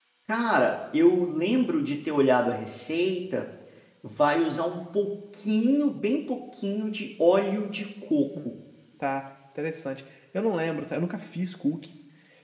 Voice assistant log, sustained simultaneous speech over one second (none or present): none